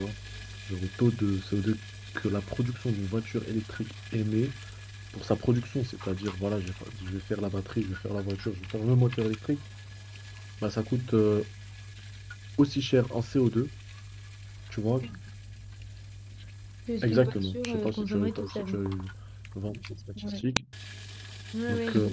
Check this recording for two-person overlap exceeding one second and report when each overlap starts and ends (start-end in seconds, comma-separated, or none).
17.0-18.8